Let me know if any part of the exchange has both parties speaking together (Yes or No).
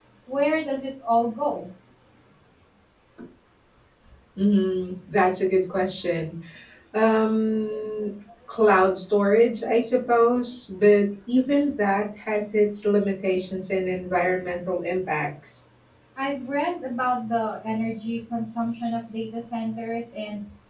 No